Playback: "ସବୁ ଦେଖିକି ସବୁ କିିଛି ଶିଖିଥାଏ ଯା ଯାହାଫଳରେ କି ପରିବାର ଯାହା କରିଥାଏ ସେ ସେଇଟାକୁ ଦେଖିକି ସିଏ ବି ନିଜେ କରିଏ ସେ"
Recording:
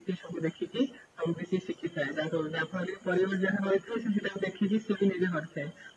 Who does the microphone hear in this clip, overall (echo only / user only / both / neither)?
echo only